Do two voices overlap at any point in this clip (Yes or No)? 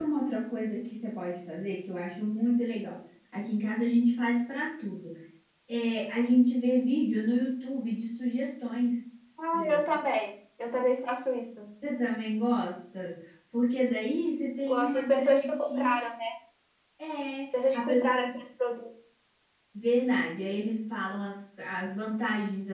Yes